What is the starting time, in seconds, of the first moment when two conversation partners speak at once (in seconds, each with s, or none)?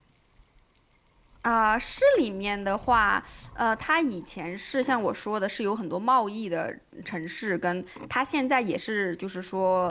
none